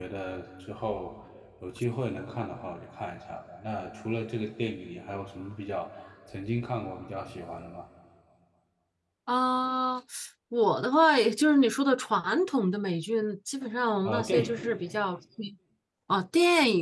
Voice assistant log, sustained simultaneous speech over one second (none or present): none